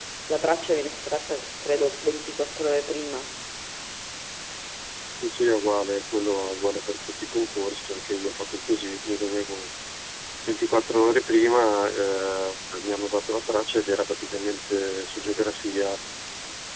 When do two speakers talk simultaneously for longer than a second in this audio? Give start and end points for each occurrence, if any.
none

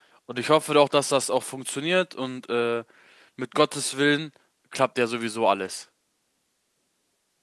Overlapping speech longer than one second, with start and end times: none

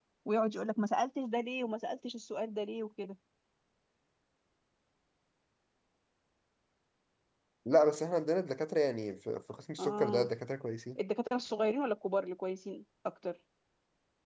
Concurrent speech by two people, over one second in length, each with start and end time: none

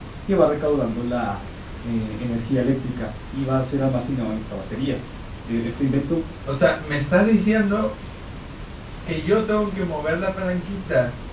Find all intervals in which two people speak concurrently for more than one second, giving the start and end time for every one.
none

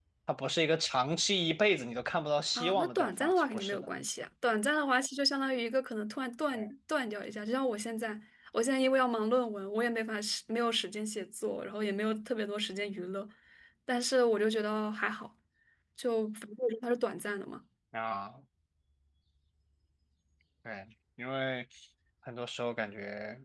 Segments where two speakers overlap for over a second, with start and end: 2.5-3.9

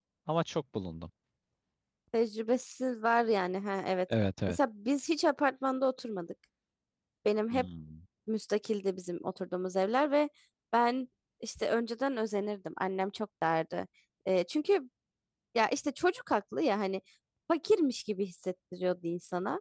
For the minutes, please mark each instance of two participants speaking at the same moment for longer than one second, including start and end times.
none

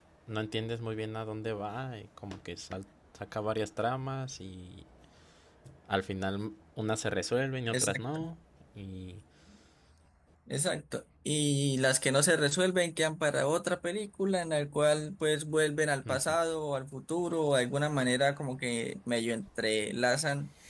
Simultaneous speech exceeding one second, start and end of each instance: none

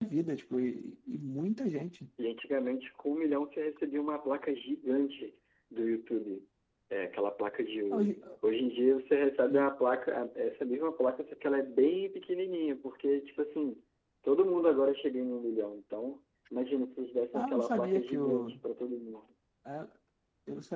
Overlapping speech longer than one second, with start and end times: 17.3-18.6

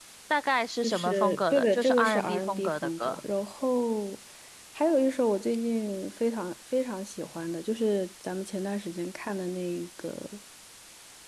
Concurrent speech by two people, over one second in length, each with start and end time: 0.8-3.2

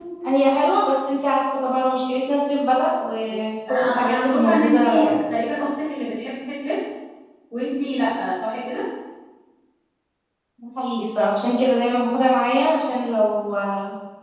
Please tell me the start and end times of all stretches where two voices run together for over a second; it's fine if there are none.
3.7-5.1

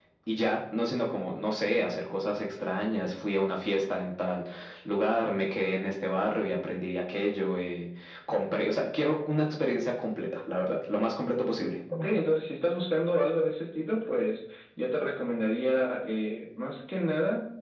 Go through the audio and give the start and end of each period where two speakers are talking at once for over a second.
none

